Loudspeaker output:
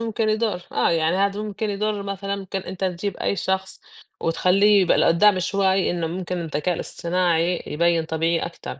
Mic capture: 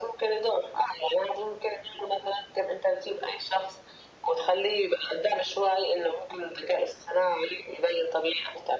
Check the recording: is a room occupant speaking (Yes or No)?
No